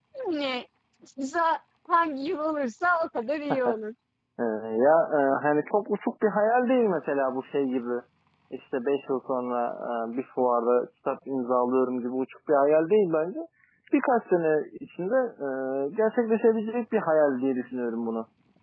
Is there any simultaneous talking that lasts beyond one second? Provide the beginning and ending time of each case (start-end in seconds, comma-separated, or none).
none